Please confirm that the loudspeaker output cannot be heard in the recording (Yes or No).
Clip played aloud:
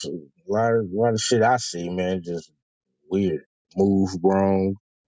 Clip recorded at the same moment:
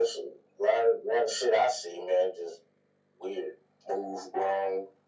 No